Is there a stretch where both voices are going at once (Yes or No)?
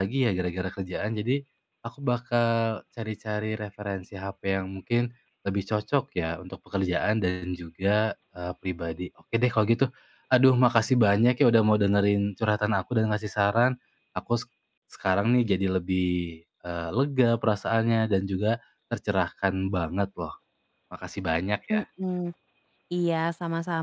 No